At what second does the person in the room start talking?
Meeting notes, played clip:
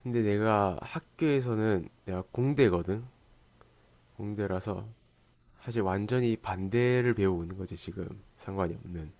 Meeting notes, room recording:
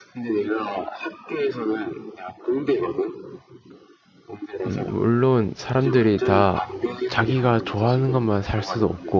4.7 s

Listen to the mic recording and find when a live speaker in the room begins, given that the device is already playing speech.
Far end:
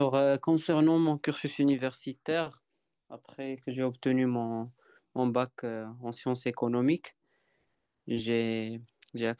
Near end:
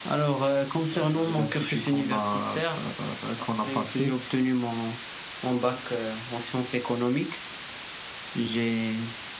0.9 s

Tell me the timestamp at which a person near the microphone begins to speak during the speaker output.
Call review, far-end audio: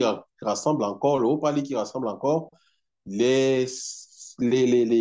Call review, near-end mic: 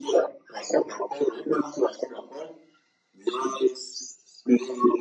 none

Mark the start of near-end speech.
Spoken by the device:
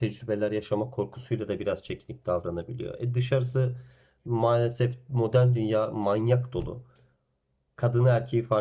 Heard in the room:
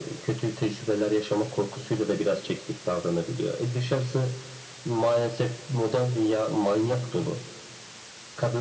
none

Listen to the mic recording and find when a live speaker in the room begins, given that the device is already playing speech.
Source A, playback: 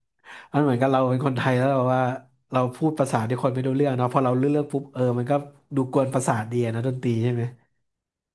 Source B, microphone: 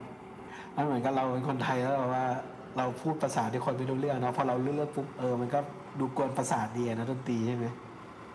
none

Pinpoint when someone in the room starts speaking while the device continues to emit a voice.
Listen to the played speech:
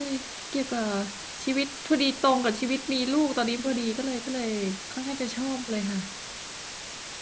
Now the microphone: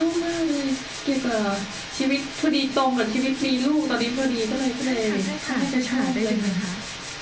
4.8 s

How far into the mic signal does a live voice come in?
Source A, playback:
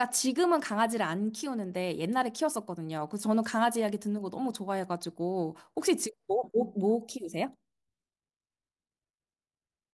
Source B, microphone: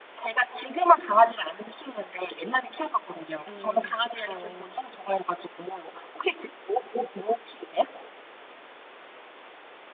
3.5 s

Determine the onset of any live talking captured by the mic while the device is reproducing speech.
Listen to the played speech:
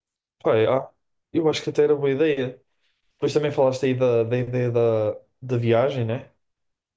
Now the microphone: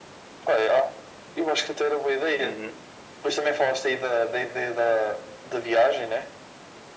2.4 s

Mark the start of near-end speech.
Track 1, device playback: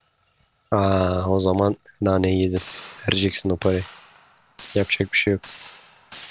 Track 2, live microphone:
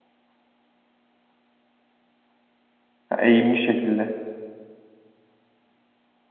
3.1 s

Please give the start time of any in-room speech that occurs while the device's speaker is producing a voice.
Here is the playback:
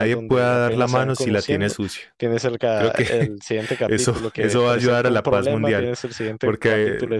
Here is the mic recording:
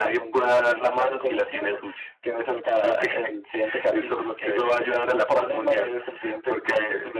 none

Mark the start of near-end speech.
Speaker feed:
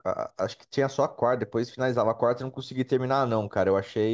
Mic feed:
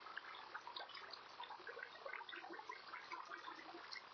none

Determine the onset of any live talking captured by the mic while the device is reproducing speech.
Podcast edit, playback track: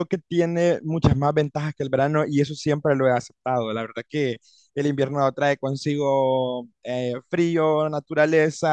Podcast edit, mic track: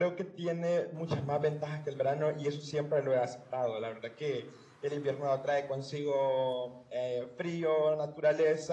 none

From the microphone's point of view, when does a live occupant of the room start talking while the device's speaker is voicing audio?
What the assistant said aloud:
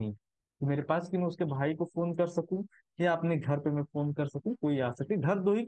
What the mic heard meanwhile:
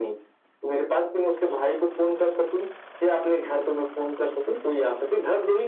none

